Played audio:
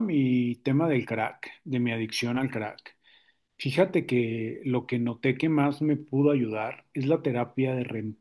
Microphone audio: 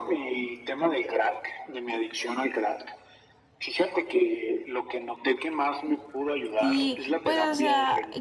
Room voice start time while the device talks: 6.6 s

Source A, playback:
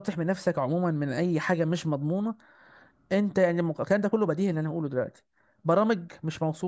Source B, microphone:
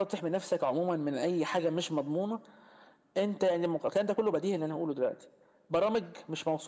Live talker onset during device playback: none

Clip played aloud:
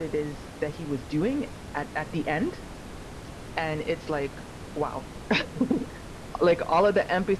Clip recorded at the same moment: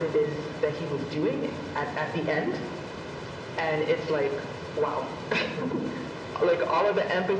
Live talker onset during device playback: none

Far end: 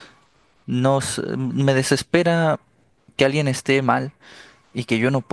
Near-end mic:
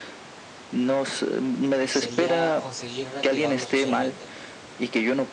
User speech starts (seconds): 1.9 s

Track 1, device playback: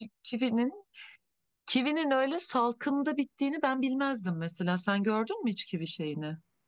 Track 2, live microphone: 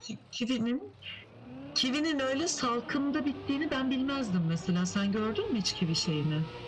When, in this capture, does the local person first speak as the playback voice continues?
none

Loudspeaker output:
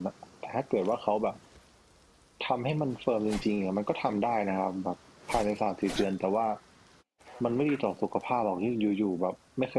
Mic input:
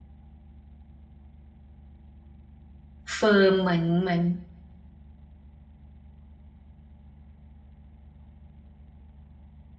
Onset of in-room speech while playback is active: 3.1 s

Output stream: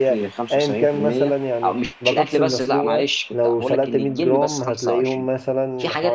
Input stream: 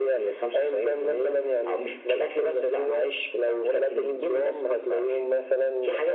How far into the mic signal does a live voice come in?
none

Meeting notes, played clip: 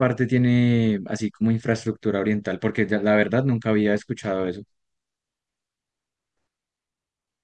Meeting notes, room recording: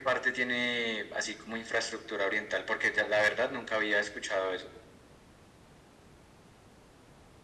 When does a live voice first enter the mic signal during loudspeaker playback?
none

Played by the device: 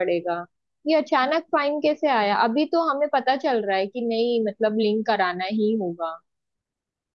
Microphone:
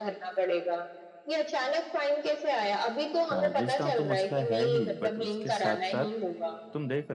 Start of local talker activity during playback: 3.3 s

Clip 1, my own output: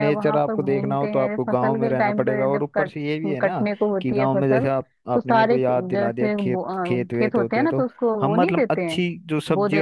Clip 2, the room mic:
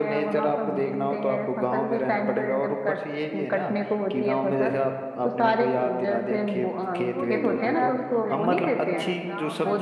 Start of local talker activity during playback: 7.1 s

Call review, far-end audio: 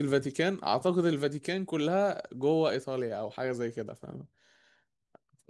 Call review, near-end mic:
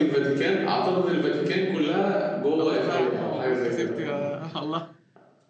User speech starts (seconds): 2.6 s

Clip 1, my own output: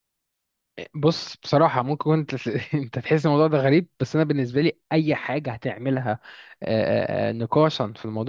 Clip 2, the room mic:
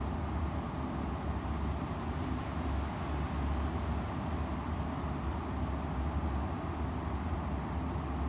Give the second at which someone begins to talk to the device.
none

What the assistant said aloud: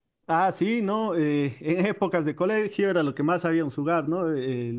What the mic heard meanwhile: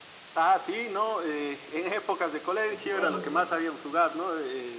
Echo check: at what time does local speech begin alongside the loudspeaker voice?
2.7 s

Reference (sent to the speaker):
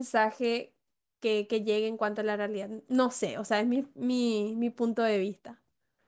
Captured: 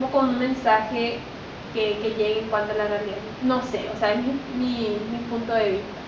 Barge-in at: none

